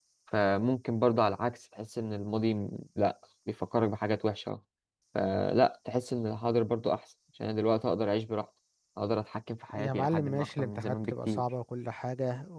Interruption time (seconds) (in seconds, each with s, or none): 9.8 s